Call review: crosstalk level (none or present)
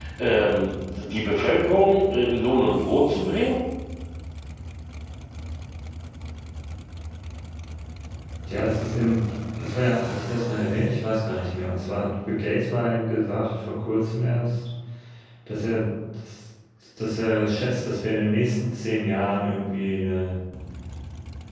none